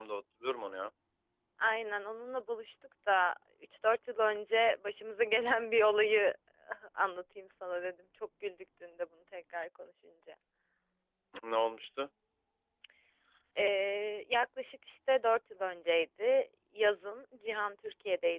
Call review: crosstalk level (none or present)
none